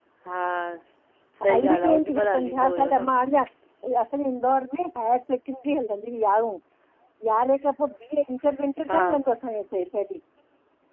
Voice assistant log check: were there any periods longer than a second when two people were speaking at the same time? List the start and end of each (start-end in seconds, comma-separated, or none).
1.5-3.1